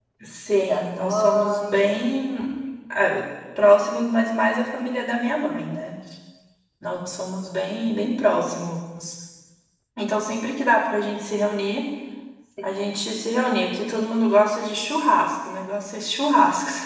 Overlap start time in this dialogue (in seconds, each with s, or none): 0.5 s